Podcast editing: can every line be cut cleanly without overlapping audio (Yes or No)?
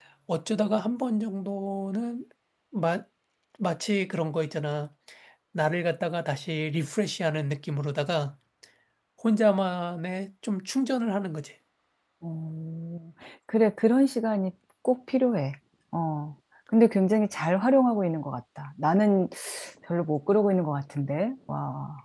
Yes